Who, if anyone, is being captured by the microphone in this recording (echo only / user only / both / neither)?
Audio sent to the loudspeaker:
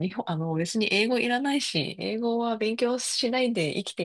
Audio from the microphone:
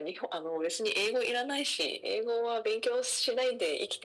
echo only